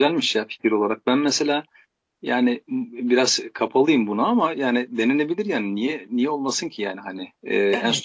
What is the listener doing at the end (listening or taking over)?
listening